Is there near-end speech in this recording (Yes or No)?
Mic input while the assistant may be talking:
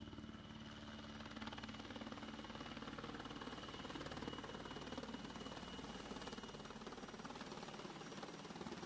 No